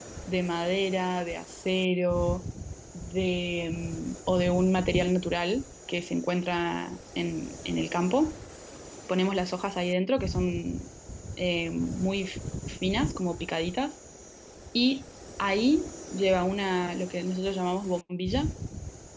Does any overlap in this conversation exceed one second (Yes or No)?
No